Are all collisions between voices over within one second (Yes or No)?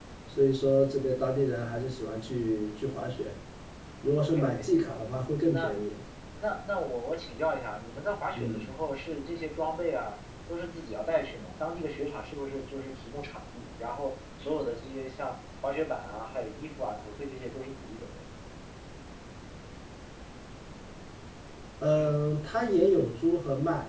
Yes